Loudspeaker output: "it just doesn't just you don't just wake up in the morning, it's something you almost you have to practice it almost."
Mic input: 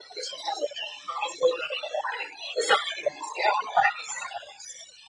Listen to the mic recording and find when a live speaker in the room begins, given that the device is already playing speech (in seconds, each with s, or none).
none